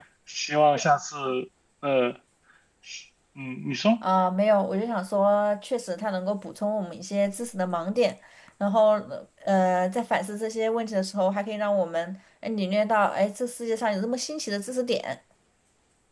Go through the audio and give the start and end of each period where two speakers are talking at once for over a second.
none

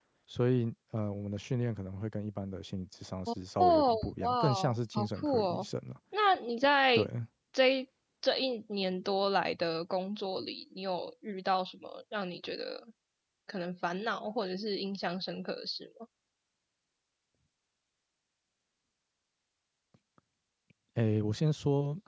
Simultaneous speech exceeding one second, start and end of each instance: 3.6-5.7

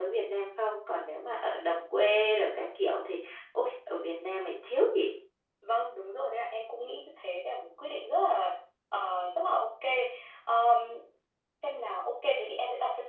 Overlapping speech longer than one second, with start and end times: none

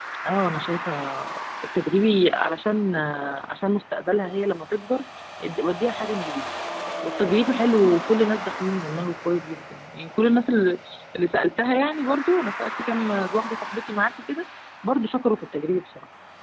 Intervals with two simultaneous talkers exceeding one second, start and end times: none

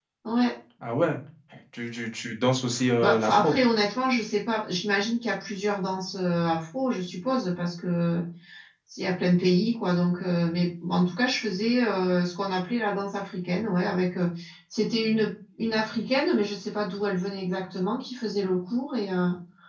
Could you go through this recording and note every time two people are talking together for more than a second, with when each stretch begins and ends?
none

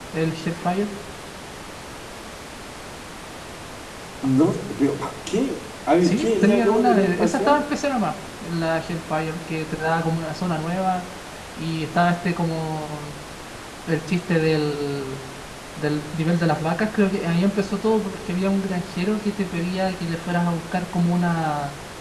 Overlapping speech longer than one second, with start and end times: 6.0-7.6

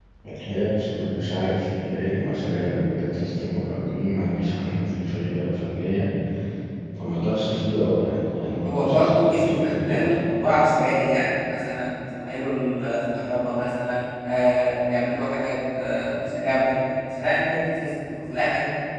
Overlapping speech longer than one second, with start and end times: 8.7-10.1

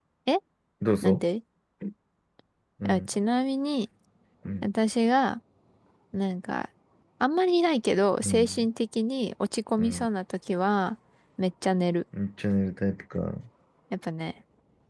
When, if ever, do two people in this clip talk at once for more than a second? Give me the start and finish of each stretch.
none

